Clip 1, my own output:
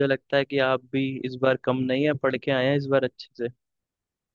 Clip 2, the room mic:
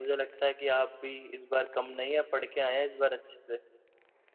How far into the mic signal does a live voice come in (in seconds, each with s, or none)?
none